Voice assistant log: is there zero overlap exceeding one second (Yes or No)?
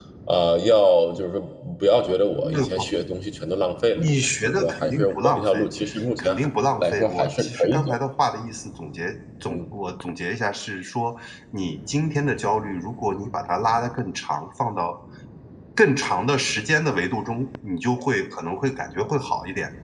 No